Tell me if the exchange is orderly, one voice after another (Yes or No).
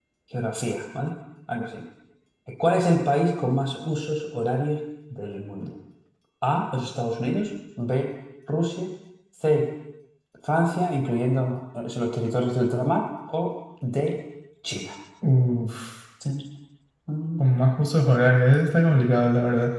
Yes